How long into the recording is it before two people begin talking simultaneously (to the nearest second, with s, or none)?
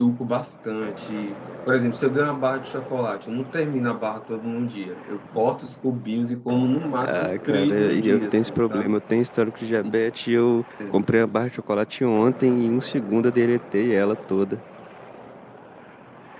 7 s